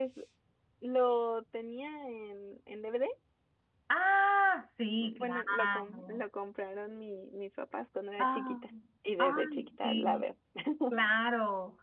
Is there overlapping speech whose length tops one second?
Yes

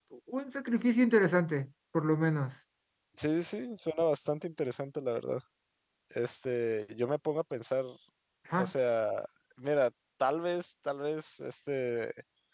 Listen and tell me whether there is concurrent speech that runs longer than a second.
No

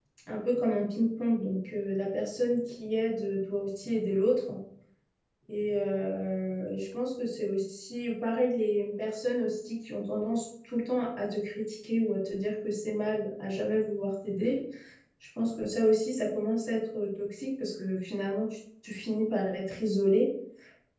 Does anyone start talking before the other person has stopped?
No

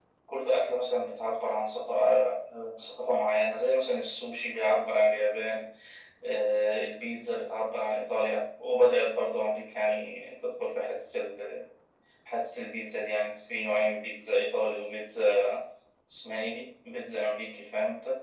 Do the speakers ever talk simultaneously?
No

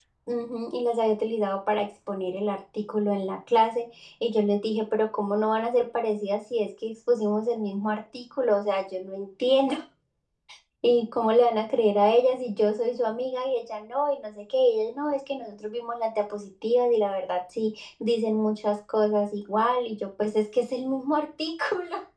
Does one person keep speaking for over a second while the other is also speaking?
No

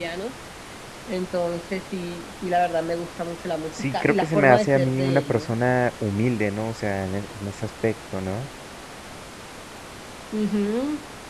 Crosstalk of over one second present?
Yes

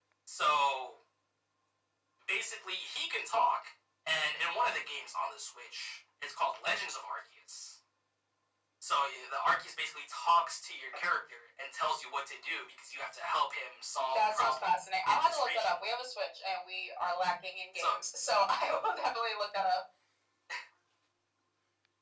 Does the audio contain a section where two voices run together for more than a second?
Yes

